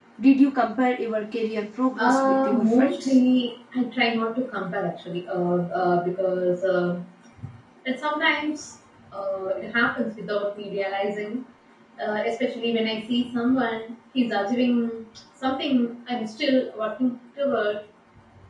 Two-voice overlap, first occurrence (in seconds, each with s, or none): 2.0 s